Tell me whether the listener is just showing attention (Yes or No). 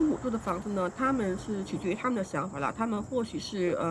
Yes